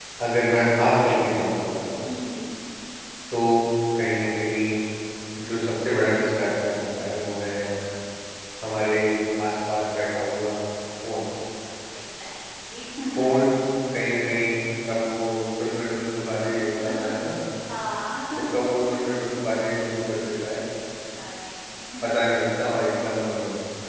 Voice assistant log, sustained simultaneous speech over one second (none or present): none